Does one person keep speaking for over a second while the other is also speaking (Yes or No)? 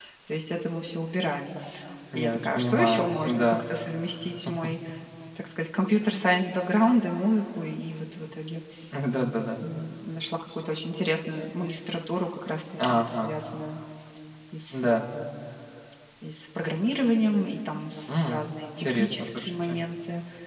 Yes